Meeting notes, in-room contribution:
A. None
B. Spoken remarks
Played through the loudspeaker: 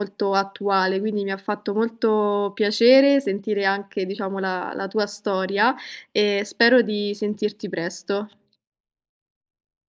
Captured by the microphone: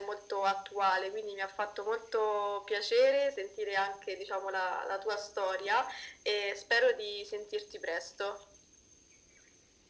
A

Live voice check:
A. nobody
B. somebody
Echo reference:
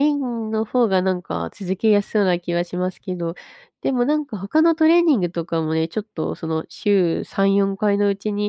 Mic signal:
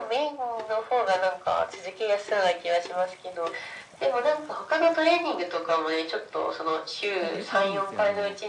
B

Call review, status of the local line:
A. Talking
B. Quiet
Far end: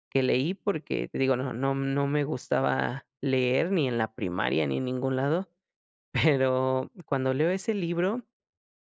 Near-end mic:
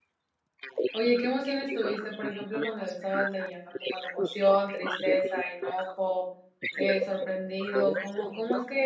A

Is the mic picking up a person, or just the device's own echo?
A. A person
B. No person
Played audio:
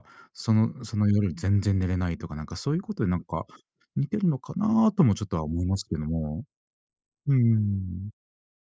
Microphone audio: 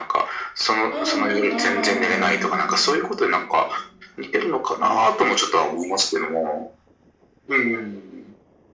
A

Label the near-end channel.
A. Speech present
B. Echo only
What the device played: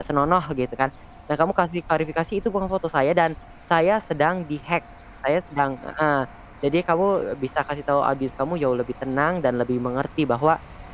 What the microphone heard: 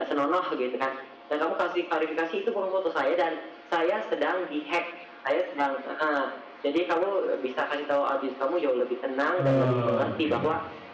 A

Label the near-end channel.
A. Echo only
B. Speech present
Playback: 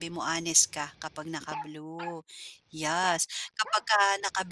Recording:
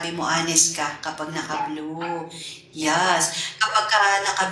A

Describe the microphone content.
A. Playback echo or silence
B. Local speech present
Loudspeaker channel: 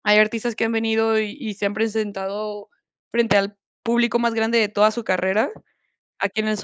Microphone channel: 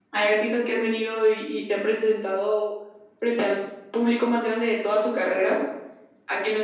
A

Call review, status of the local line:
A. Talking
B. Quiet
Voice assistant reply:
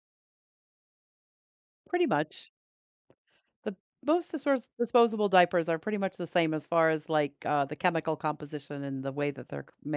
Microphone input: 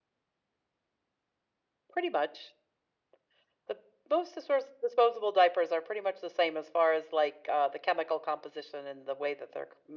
B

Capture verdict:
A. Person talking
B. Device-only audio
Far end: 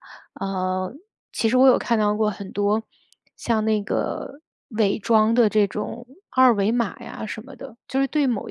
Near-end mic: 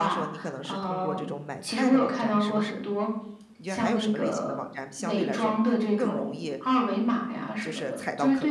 A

